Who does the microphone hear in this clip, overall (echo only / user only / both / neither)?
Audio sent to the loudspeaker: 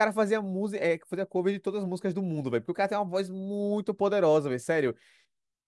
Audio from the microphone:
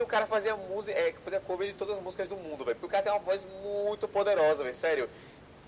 echo only